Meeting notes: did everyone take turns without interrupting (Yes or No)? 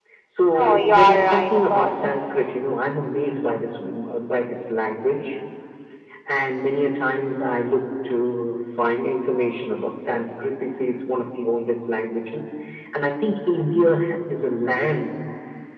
No